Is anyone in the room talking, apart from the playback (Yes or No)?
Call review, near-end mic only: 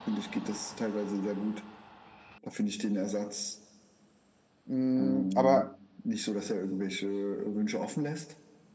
Yes